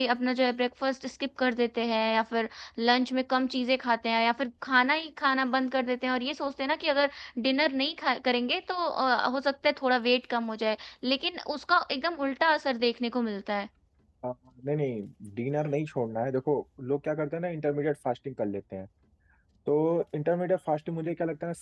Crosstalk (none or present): none